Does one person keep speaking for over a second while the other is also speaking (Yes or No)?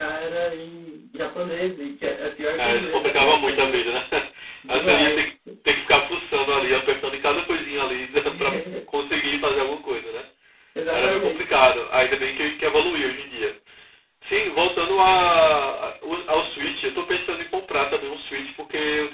Yes